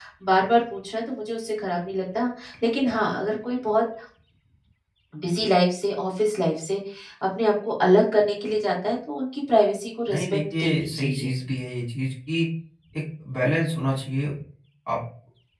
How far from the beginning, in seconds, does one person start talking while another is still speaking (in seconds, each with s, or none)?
10.1 s